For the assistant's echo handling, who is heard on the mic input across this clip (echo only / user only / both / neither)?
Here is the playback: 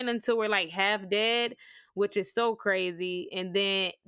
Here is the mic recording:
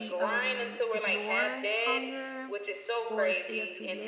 both